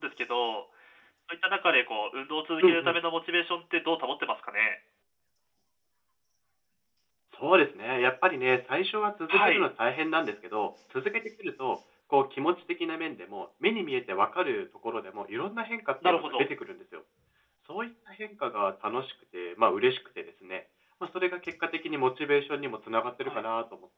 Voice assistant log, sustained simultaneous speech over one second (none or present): none